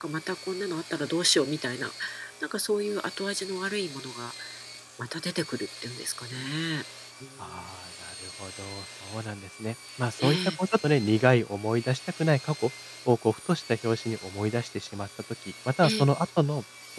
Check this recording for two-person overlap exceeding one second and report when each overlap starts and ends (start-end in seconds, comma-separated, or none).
none